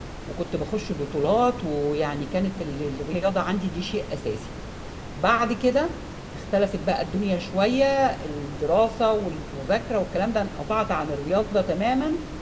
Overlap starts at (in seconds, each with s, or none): none